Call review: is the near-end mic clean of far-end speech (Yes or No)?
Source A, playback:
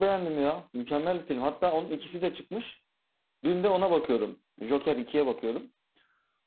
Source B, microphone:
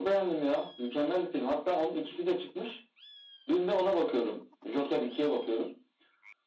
No